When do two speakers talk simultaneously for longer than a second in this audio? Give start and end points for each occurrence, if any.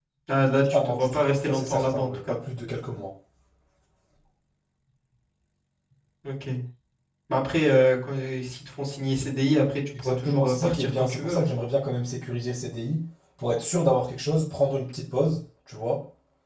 0.7-2.4, 10.0-11.5

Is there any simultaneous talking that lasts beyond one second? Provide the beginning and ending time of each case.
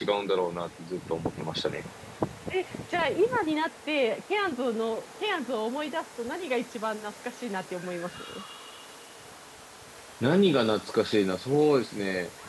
none

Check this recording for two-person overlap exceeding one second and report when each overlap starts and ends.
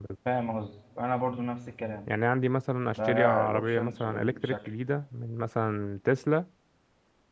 3.0-4.5

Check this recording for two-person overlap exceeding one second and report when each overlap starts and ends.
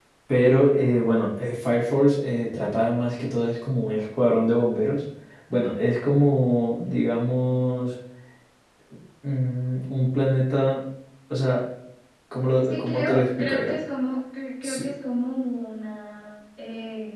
12.6-13.8

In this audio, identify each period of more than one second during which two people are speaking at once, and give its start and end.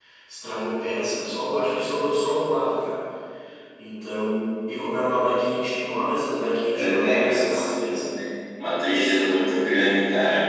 6.7-8.0

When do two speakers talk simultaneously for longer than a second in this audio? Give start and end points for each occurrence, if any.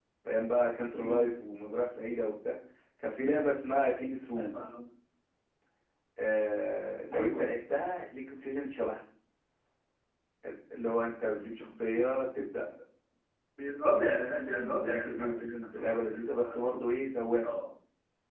14.6-16.8

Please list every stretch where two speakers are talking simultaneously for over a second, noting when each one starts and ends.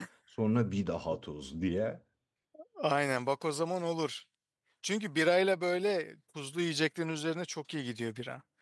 none

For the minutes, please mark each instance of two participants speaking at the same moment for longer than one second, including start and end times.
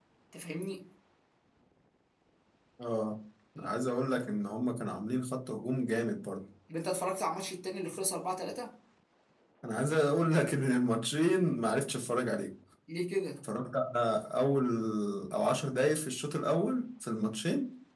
none

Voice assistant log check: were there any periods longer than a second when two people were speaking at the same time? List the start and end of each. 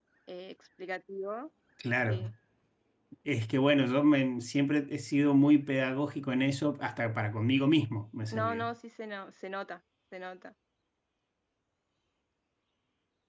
none

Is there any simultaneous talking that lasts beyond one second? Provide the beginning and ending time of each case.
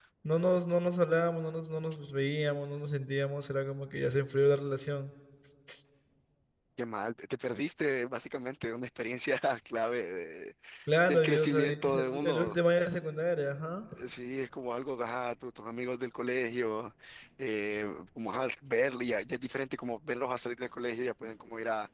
11.1-12.6

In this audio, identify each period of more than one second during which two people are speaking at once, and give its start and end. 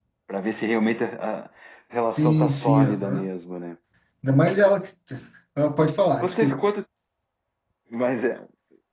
2.0-3.3

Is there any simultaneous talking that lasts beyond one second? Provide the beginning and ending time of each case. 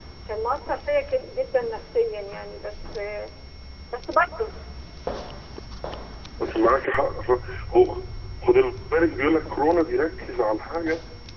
none

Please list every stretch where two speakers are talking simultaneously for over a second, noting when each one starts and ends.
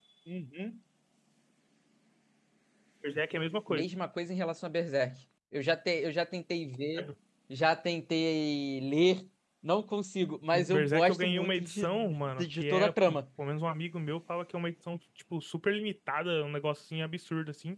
10.7-13.2

